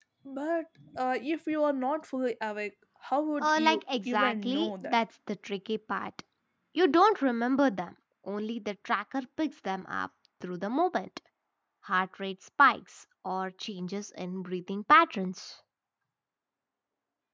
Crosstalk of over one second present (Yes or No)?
Yes